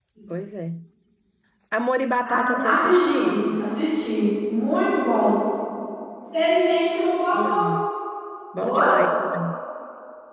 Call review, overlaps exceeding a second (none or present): present